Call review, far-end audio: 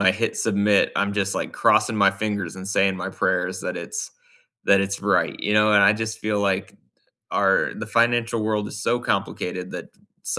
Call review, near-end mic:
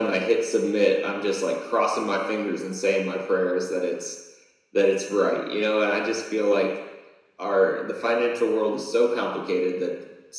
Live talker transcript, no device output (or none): none